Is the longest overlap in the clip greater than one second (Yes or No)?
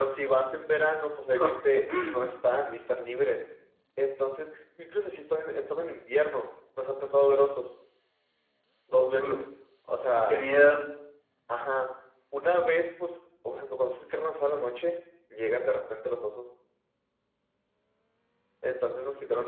No